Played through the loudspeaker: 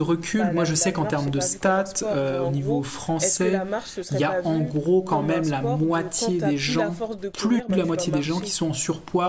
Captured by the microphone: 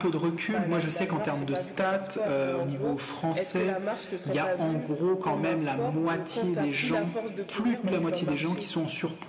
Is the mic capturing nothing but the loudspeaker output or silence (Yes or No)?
Yes